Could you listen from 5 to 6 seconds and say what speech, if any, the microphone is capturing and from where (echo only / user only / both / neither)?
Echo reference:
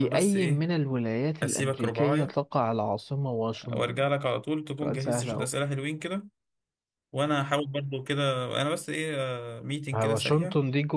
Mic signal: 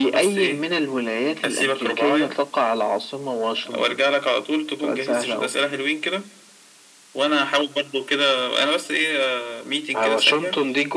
echo only